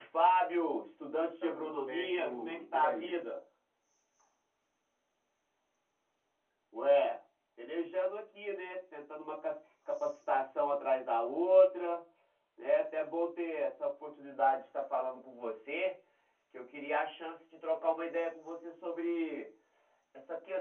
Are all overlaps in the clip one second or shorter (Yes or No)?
No